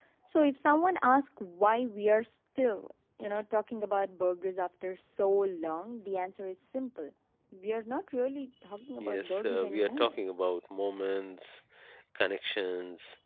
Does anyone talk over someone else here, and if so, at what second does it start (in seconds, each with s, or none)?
9.0 s